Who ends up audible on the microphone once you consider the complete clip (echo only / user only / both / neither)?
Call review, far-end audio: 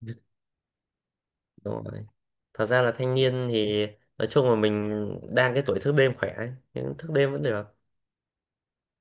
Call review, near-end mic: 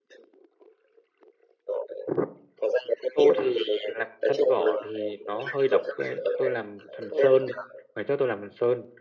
both